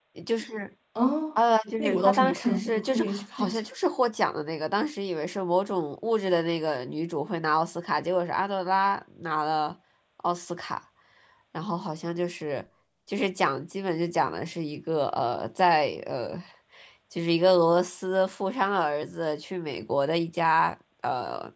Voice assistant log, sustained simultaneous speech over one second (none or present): present